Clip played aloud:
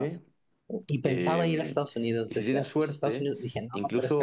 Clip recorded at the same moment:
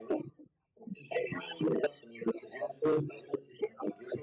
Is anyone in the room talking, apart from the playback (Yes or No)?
No